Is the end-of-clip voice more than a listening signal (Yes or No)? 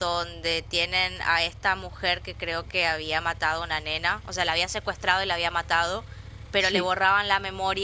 No